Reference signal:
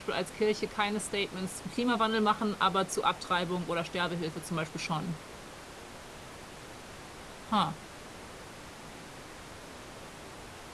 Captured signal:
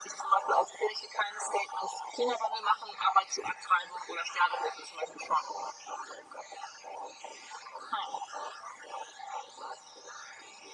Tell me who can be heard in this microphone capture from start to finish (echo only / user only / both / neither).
echo only